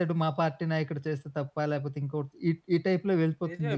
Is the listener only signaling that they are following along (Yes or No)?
No